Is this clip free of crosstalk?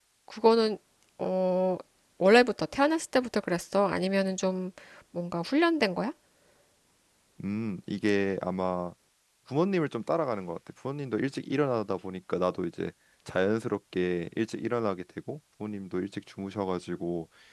Yes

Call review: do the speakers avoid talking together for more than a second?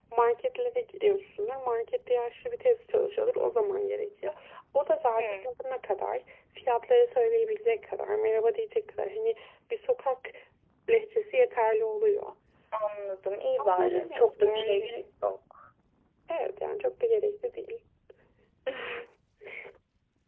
No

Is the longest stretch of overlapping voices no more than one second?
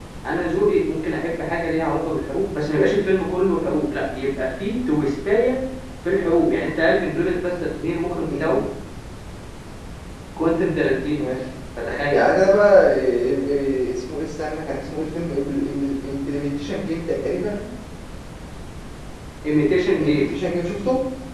Yes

